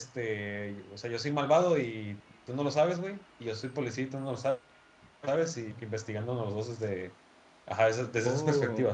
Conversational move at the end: listening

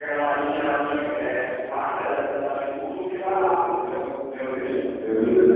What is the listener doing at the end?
taking over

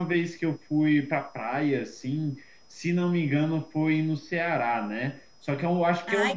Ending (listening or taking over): listening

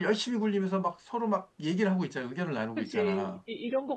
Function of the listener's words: taking over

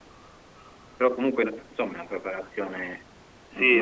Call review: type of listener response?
taking over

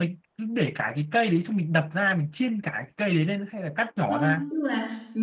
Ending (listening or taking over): taking over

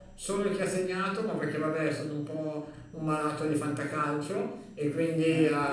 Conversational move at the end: listening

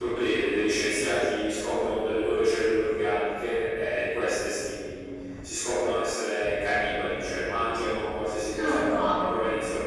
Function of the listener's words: listening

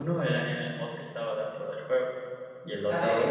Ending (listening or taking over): taking over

